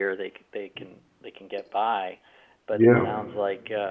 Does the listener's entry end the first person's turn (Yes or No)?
No